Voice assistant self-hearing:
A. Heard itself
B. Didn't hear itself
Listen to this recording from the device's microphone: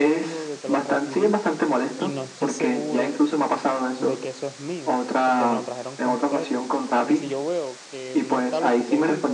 A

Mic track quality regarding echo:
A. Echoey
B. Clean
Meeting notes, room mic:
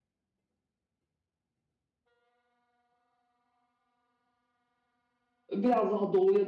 B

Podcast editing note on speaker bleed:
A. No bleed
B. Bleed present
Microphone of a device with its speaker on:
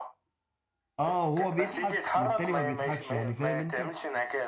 B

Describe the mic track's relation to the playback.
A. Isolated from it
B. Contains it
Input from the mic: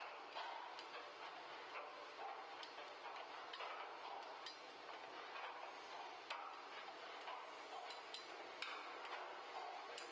A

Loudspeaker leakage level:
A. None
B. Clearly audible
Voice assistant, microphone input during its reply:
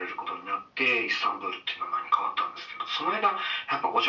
B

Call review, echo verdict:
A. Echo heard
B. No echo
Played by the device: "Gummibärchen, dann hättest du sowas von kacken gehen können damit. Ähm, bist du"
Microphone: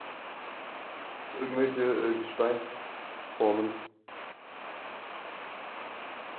B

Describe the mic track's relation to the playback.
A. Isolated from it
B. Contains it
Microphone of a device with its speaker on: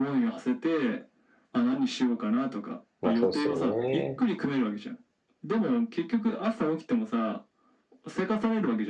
B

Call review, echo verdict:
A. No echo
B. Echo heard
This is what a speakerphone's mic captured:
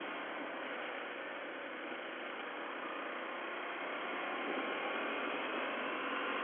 A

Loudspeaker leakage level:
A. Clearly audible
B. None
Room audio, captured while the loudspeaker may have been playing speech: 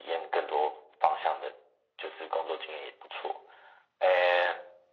A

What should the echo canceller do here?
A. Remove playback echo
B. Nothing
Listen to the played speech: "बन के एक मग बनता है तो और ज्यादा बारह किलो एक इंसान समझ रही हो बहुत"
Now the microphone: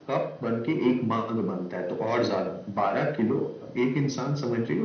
A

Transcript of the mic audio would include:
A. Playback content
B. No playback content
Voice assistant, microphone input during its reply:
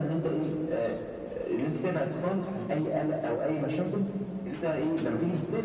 A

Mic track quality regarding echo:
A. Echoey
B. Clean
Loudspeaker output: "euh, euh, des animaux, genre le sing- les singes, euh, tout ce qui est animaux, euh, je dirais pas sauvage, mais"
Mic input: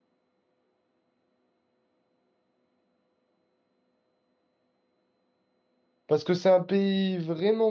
B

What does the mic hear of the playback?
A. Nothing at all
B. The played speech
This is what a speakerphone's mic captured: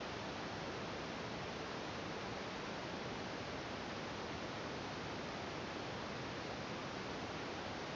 A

